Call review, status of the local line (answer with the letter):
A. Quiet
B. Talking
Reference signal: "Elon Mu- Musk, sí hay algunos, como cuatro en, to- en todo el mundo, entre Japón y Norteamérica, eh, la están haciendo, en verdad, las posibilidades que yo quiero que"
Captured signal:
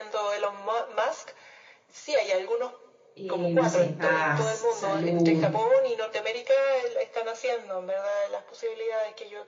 B